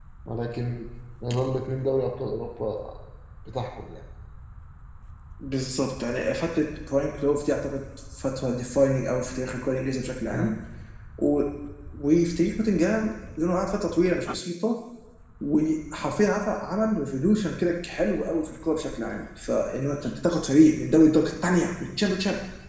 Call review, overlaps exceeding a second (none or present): none